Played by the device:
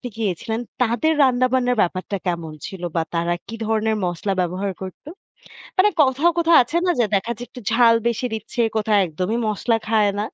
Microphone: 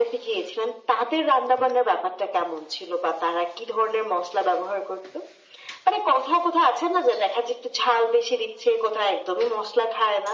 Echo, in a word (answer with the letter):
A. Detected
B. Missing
A